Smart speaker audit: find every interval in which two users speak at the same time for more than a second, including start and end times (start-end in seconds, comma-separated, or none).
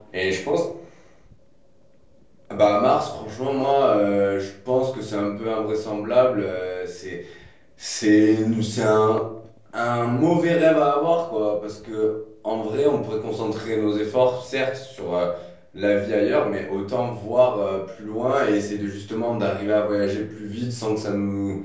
none